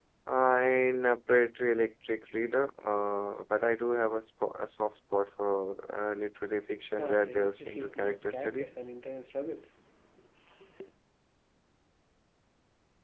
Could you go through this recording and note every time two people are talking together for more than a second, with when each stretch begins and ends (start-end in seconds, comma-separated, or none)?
7.0-8.7